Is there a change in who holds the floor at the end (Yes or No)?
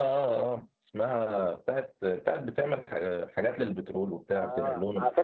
Yes